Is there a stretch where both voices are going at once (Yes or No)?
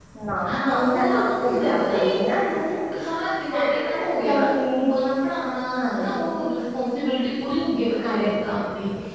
Yes